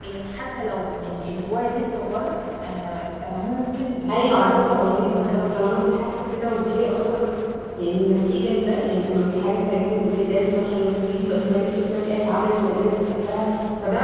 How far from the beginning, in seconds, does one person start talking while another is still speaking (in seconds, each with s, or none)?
4.1 s